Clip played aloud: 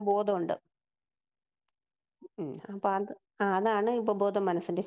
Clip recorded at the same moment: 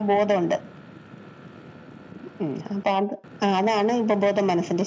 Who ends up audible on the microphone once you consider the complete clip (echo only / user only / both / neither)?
echo only